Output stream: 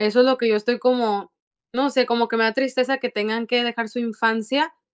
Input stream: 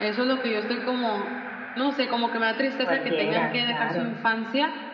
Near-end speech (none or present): present